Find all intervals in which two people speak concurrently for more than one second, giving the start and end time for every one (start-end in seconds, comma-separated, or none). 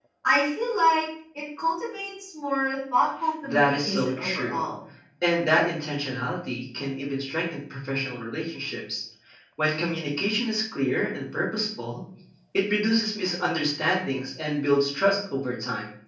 3.4-4.7